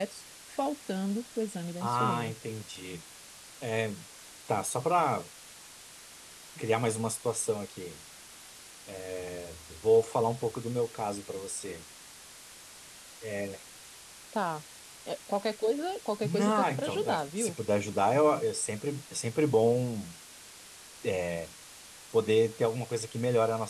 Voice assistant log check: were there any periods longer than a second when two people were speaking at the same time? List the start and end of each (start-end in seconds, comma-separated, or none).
16.2-17.6